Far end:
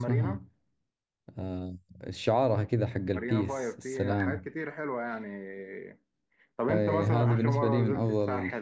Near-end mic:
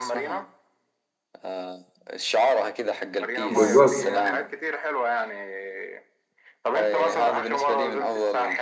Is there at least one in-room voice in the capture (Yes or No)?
Yes